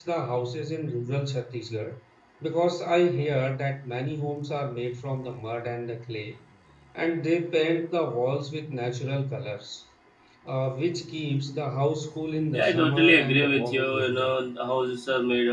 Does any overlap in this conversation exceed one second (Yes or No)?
Yes